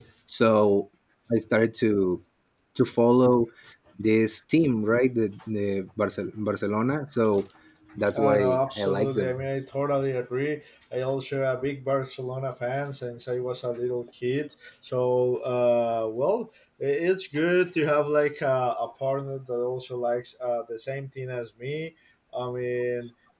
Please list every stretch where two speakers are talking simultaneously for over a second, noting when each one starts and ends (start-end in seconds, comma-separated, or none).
8.2-9.4